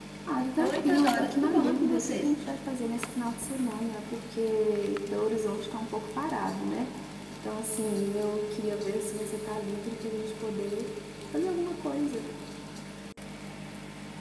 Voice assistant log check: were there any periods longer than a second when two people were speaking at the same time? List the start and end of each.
0.6-2.3

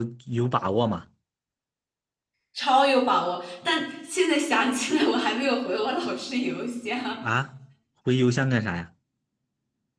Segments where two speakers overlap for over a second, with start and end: none

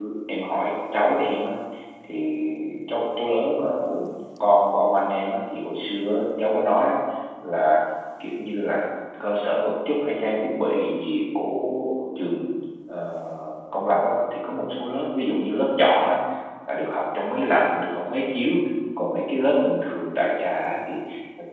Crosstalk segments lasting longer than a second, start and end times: none

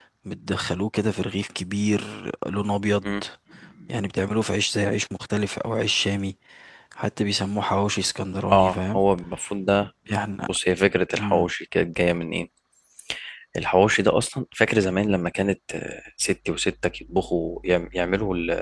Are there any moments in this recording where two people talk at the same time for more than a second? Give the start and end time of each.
none

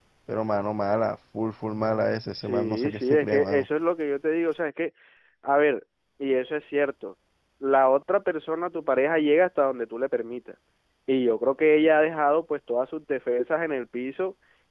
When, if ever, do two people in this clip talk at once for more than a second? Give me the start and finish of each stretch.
2.4-3.7

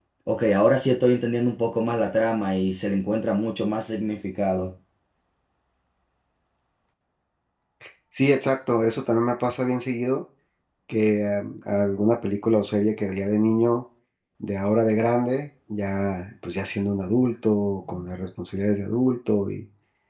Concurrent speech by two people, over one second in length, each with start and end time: none

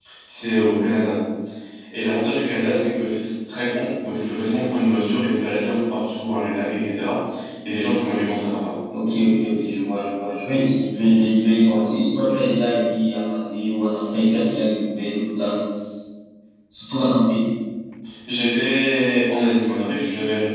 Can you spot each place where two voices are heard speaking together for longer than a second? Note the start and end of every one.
none

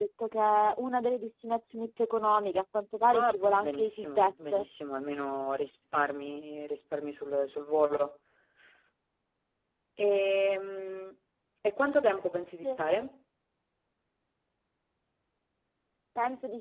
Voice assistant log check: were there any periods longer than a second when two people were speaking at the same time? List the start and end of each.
3.1-4.7

